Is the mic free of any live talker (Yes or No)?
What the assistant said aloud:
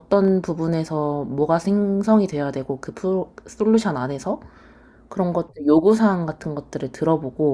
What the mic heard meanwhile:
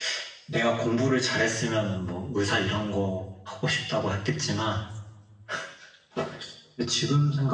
No